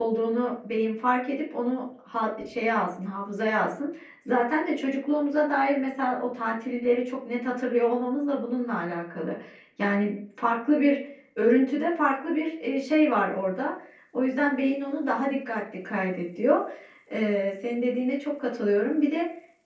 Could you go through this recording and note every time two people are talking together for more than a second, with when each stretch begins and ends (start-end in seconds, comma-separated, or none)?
none